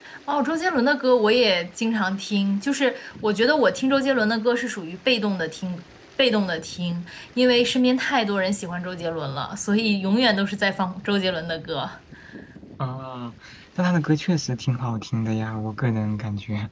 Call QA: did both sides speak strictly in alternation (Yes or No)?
Yes